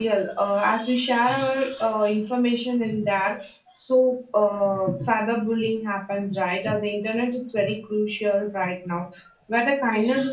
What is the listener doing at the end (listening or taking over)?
listening